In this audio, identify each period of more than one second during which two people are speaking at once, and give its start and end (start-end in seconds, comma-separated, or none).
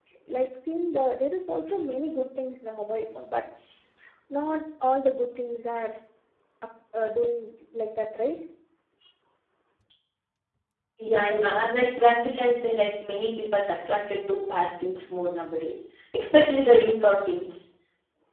none